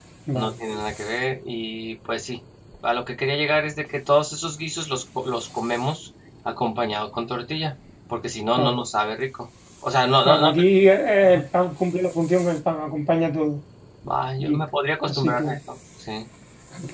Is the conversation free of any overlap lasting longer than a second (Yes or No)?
Yes